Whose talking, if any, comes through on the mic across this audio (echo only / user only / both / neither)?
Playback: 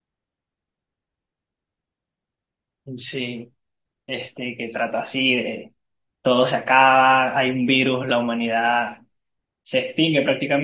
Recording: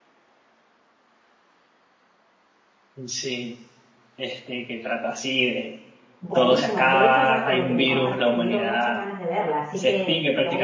both